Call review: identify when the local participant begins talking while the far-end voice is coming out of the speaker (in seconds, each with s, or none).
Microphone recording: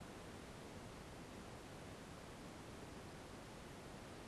none